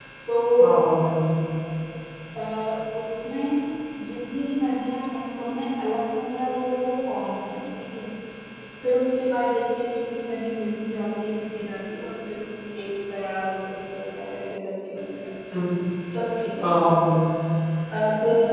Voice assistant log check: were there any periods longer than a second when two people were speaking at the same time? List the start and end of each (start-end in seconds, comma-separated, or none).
none